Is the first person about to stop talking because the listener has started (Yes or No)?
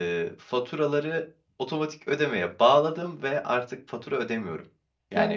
Yes